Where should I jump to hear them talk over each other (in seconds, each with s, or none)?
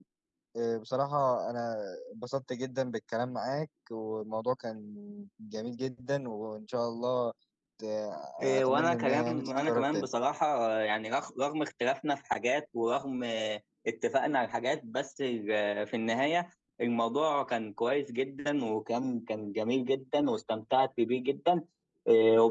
8.4 s